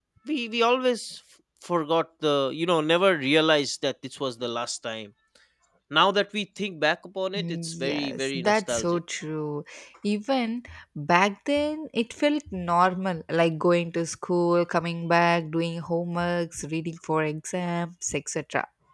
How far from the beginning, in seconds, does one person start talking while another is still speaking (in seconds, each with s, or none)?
7.3 s